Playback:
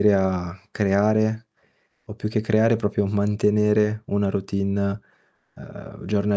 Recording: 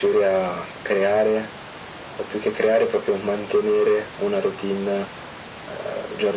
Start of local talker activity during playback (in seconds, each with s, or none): none